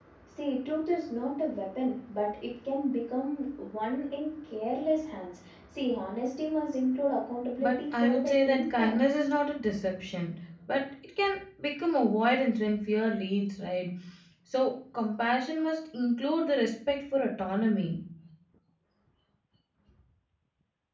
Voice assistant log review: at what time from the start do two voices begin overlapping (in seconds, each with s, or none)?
7.6 s